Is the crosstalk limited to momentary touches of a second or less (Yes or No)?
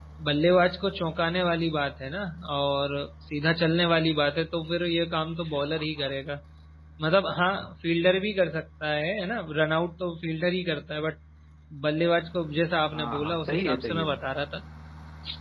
No